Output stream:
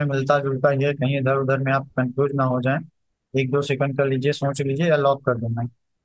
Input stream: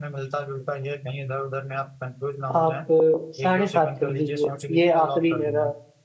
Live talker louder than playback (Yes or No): Yes